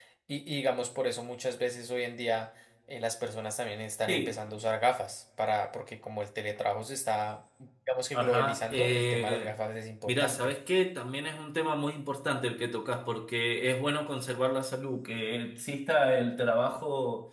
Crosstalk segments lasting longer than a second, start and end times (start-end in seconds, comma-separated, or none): 8.1-9.6